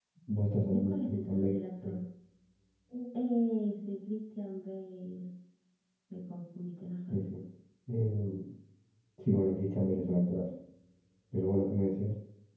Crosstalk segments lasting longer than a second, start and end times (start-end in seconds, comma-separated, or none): 0.7-2.0